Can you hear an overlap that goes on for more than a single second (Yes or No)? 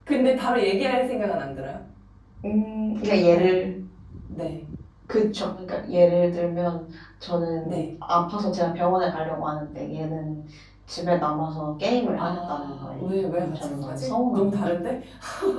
Yes